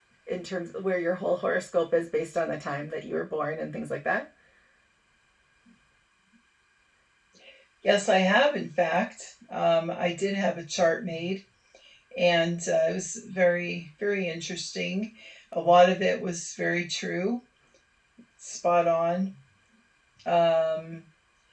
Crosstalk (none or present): none